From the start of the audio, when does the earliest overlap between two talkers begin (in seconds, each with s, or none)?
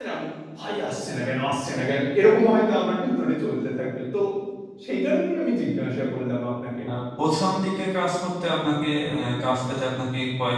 none